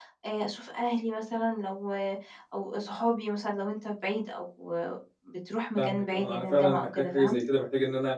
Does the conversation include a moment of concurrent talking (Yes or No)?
Yes